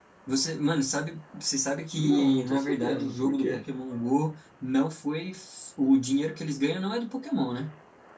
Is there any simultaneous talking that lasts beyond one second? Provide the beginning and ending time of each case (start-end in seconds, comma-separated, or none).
1.9-3.6